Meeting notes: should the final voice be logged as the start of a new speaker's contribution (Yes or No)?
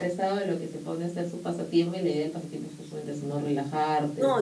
Yes